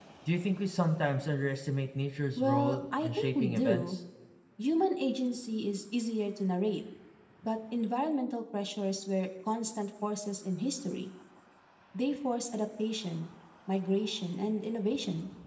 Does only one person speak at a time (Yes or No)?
No